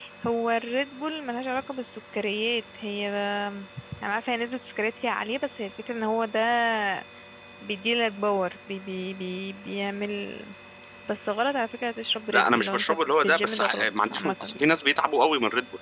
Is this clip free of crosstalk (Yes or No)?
No